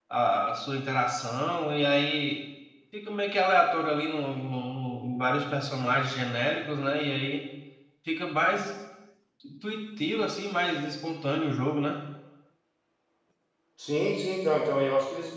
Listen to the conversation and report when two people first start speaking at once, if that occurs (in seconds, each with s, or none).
none